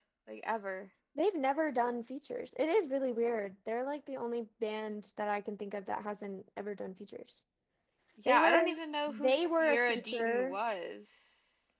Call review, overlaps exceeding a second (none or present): present